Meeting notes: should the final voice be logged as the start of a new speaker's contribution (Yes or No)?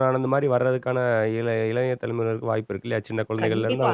Yes